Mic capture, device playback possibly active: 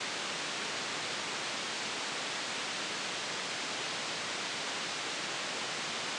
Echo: none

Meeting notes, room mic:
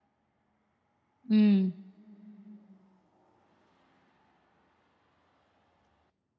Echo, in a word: none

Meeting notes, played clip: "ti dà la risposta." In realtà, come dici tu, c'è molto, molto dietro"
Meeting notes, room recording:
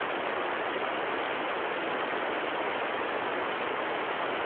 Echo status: none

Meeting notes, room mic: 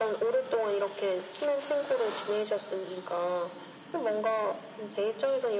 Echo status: present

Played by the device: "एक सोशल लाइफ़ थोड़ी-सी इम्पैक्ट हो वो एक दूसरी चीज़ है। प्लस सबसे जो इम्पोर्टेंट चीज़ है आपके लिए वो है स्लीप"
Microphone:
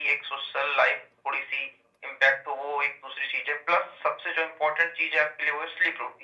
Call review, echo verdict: present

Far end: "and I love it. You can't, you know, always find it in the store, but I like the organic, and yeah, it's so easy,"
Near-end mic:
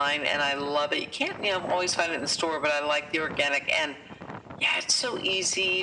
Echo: present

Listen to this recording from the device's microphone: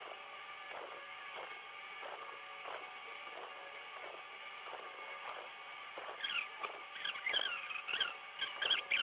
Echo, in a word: none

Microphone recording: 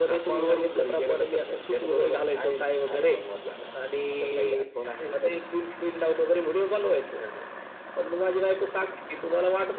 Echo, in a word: present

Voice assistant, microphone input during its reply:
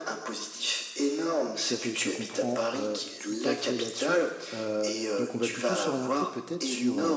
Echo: present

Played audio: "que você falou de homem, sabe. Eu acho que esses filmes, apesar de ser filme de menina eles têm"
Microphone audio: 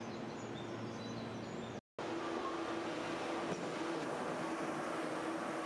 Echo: none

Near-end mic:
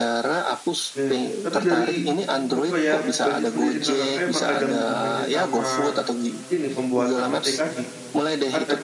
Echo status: present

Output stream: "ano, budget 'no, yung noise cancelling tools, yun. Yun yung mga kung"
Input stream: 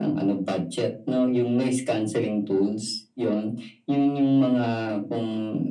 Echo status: present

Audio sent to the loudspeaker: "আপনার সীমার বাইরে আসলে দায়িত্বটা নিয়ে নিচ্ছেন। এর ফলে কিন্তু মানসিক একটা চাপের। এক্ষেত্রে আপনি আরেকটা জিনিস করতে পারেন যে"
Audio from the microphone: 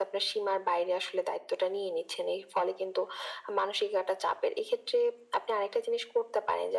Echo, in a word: present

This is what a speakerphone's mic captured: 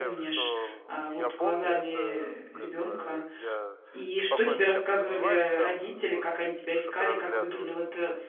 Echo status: present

